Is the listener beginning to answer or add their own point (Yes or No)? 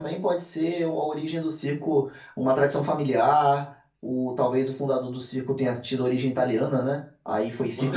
Yes